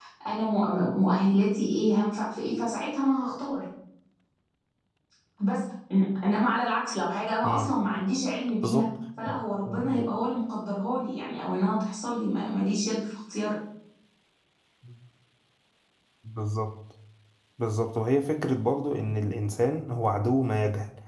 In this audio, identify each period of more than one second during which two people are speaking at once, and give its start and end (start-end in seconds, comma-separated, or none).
none